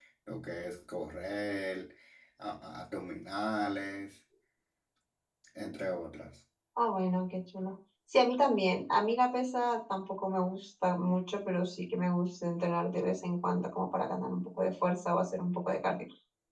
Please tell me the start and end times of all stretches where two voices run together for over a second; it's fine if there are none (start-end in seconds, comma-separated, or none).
none